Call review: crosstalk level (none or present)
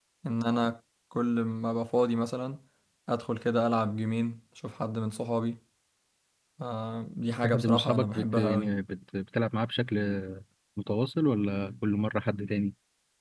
present